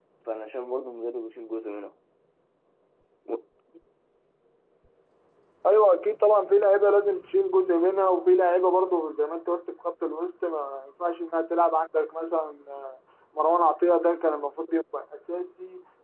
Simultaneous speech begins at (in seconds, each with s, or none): none